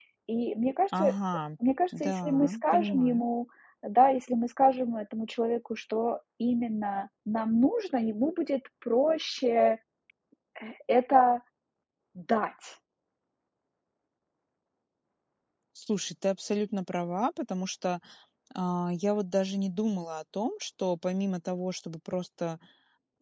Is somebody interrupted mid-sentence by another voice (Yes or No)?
Yes